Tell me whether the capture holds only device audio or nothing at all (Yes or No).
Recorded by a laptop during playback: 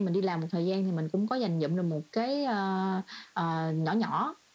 Yes